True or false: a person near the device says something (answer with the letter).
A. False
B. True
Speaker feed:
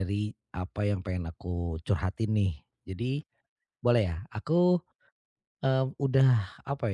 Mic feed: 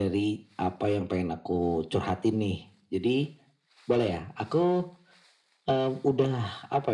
A